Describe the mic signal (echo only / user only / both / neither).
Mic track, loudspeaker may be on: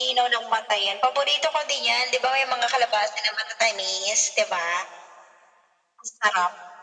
echo only